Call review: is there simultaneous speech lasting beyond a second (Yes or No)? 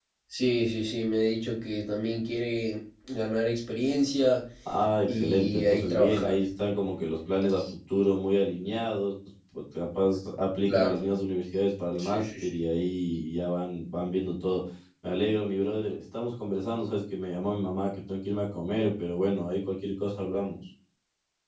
Yes